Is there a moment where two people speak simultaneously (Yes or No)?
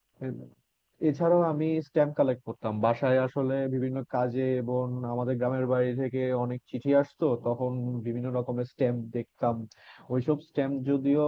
No